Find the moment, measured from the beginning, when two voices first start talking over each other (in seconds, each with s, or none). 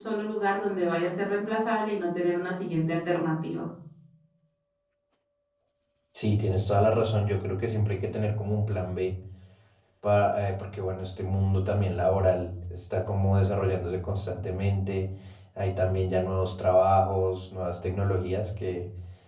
none